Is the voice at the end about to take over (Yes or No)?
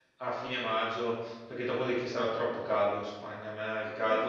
Yes